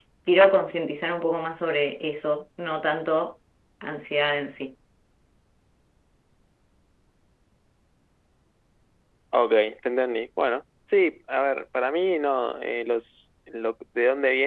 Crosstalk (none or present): none